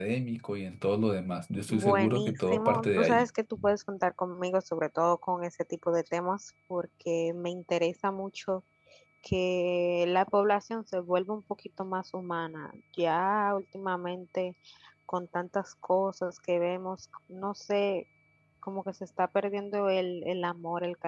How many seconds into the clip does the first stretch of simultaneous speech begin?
2 s

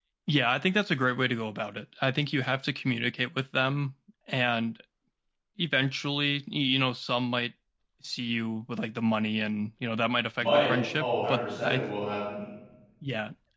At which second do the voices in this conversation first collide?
10 s

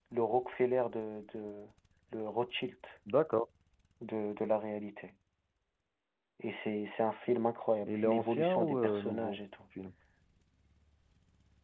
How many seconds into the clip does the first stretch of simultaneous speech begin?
8 s

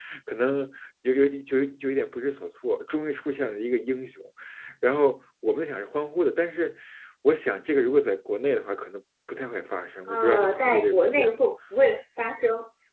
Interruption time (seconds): 10 s

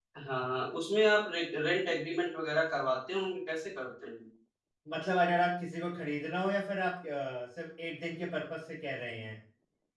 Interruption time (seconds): none

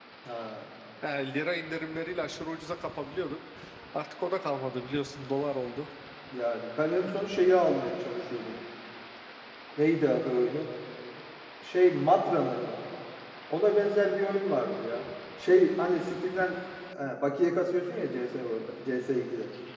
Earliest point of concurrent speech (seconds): none

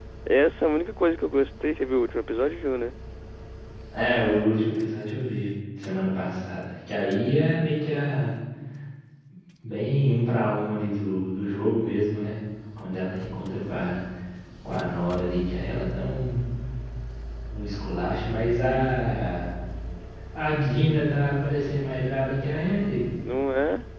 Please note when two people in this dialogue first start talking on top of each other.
none

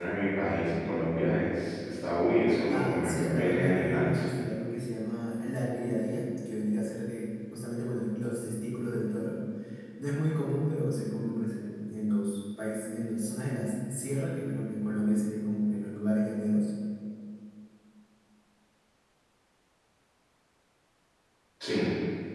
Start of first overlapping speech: 3 s

